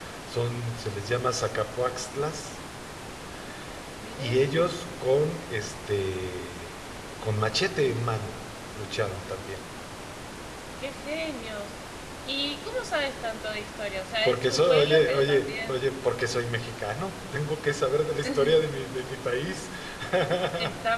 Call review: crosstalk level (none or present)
present